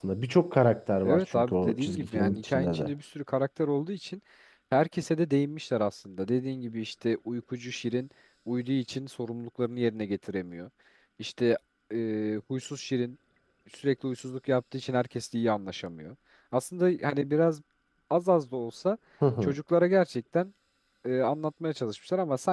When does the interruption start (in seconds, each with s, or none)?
1.0 s